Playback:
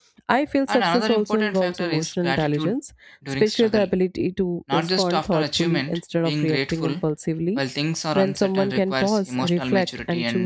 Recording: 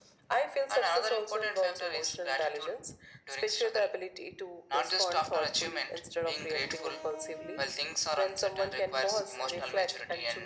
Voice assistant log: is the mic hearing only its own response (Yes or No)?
Yes